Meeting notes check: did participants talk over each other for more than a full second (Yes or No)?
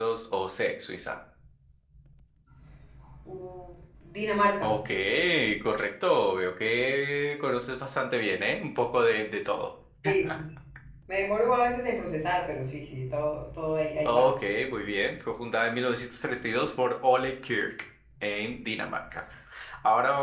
No